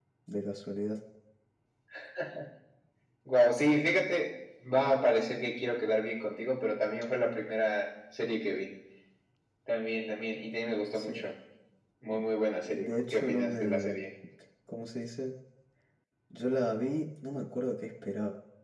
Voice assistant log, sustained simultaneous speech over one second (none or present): present